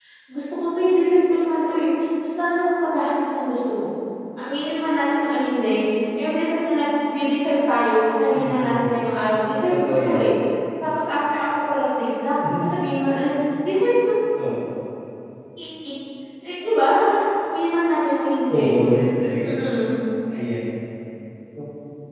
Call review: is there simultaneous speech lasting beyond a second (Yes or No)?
No